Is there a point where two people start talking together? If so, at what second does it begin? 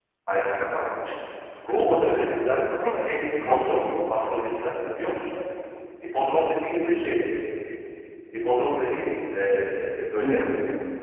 3 s

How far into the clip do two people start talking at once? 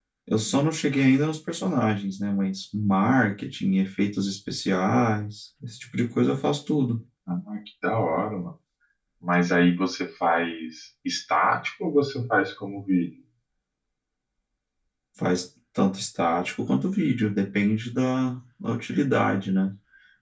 none

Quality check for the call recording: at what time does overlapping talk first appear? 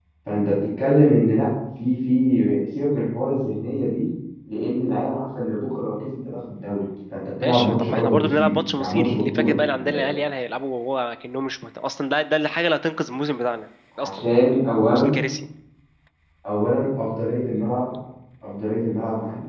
7 s

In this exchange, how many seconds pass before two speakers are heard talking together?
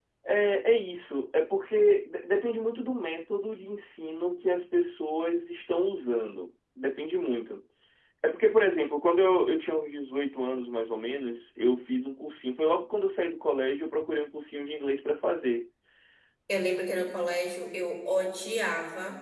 none

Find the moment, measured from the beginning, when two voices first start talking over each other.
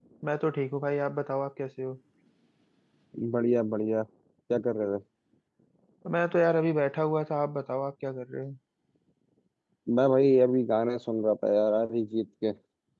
none

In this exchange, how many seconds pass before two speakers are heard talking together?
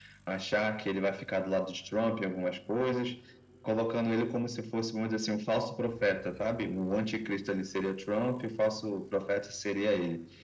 none

